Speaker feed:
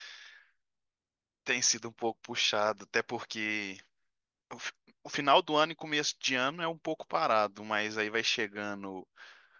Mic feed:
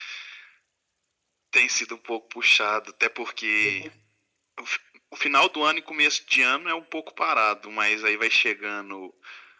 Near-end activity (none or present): present